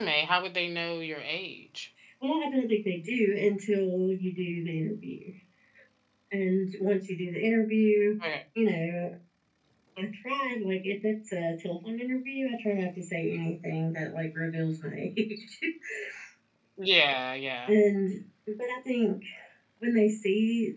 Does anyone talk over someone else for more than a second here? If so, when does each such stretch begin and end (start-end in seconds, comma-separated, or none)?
none